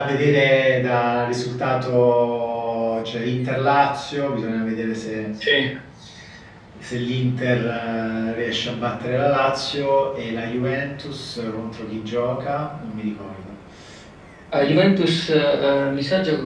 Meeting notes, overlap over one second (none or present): none